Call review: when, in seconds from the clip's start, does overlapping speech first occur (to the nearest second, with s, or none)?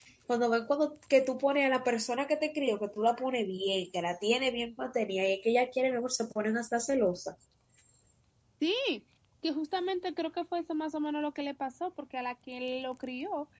none